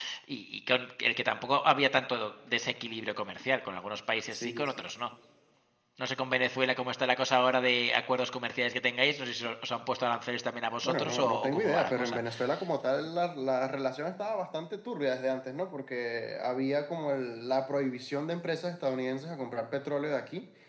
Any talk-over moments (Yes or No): Yes